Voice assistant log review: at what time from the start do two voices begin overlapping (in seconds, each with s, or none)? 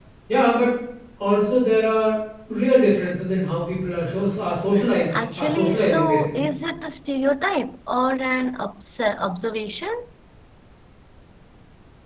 5.1 s